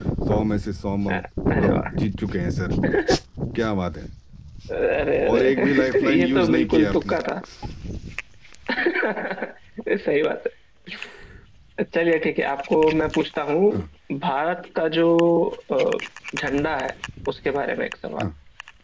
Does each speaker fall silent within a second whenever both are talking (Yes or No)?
No